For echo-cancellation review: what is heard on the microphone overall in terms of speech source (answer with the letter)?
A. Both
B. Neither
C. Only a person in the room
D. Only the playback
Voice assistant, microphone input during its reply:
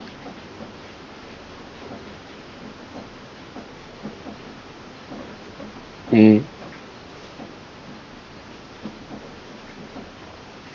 C